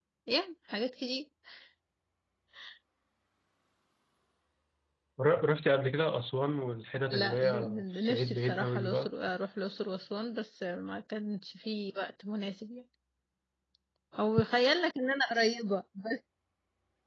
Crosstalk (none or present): present